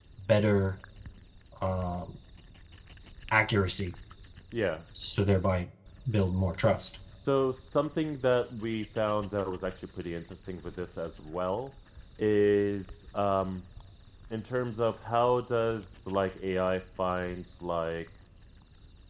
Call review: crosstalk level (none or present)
none